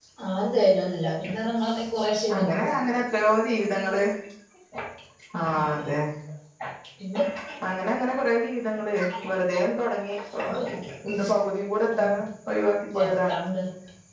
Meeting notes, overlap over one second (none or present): none